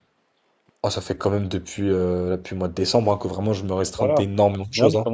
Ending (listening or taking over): taking over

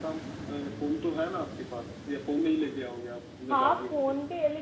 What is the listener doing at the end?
taking over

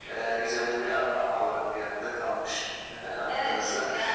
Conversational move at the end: taking over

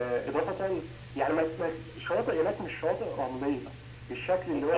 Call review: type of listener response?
listening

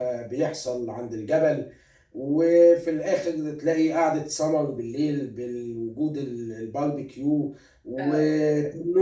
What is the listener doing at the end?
listening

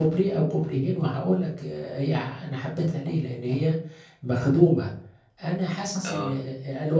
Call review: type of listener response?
listening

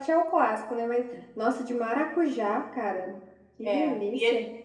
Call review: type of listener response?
taking over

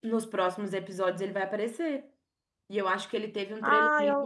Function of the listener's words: listening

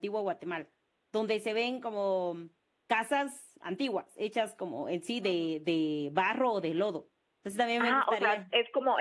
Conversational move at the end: taking over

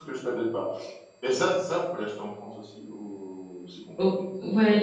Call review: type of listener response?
taking over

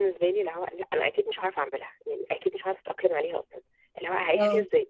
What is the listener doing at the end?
listening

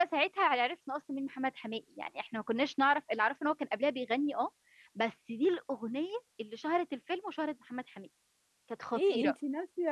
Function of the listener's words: taking over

